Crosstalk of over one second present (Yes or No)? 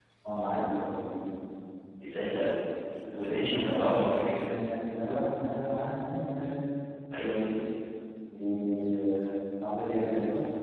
Yes